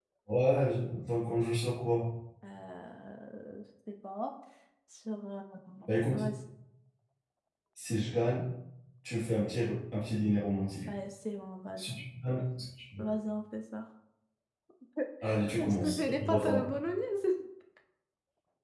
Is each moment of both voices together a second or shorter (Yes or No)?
No